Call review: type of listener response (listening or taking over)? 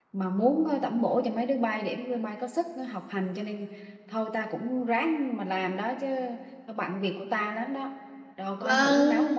taking over